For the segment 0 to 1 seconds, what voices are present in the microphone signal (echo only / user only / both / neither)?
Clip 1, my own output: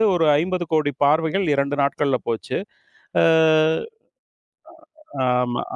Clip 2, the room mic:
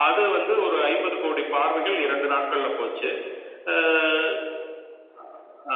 echo only